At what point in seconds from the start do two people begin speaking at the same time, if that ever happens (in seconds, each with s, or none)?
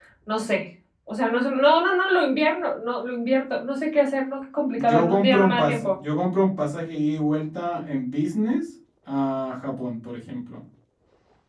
4.8 s